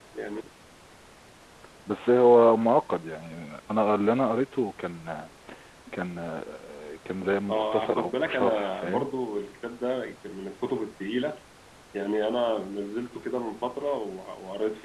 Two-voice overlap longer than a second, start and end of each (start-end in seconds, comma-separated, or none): 7.5-9.1